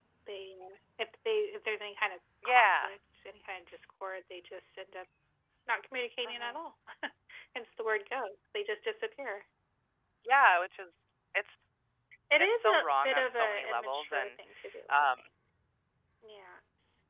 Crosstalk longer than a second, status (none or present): present